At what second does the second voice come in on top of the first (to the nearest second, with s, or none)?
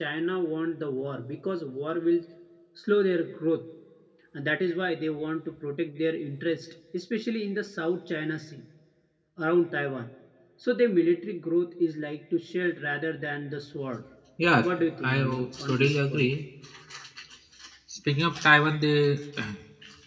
15 s